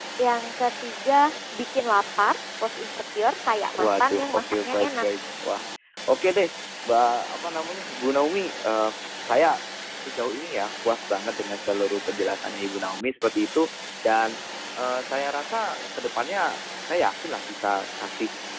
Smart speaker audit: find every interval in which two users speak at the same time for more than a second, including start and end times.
3.8-5.0

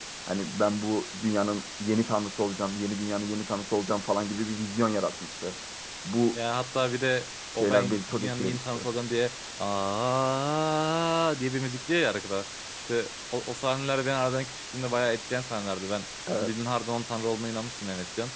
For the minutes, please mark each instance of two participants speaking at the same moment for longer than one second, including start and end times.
7.6-8.8

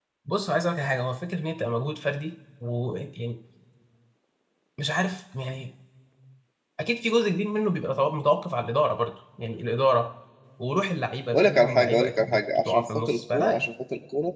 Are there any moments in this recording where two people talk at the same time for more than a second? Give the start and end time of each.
11.3-13.7

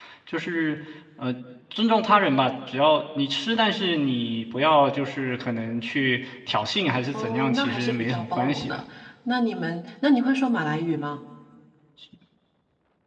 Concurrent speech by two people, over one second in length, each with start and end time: 7.1-8.8

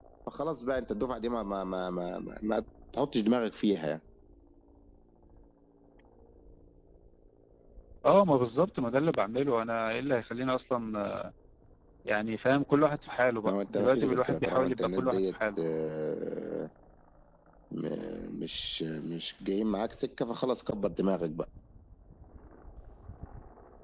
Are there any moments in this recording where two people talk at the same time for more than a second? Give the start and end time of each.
13.5-15.6

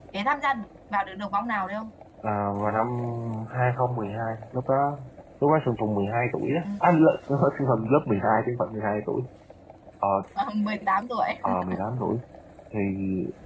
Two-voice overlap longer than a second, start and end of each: none

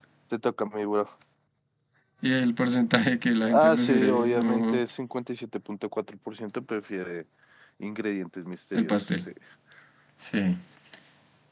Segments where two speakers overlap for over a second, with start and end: 3.5-4.8

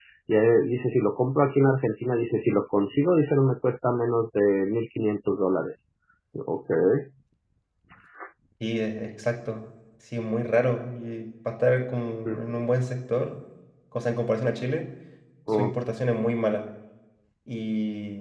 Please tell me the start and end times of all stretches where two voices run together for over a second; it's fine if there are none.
none

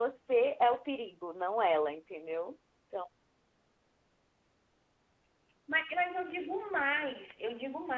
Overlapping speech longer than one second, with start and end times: none

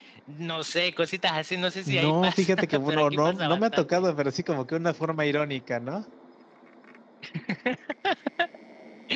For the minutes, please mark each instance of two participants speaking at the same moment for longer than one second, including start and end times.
1.9-4.0

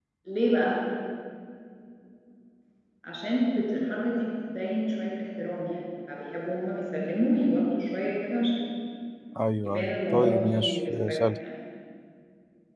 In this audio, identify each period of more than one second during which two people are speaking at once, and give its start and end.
9.6-11.2

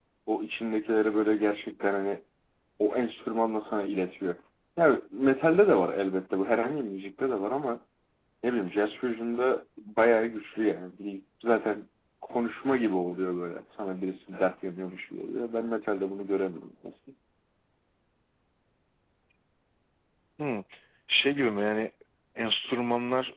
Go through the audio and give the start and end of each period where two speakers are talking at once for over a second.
none

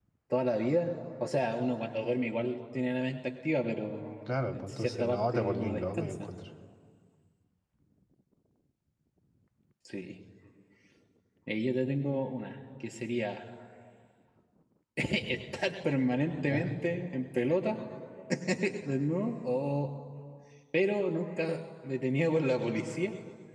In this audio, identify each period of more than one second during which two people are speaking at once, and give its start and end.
4.3-6.3

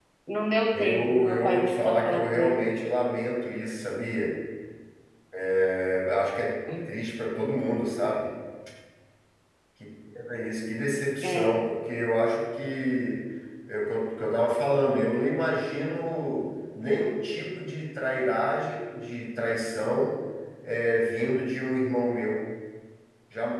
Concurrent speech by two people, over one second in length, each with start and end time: 0.7-2.8

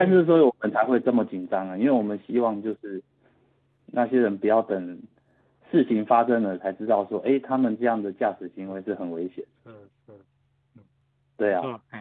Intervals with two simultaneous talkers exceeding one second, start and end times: none

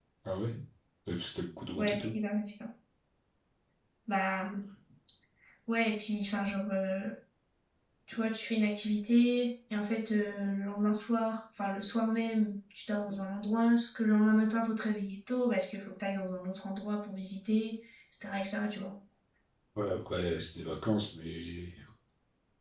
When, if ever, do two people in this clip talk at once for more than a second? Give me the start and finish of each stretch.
none

